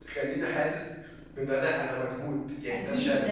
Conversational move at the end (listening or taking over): taking over